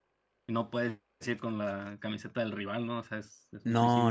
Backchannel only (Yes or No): No